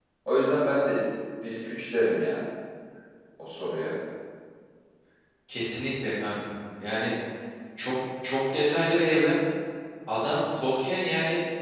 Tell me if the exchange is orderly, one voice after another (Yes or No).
Yes